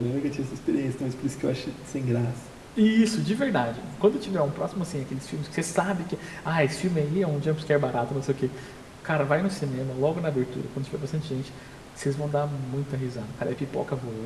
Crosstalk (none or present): none